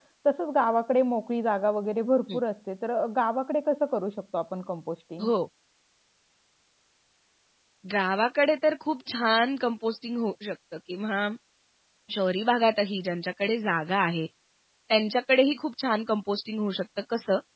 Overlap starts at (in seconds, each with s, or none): none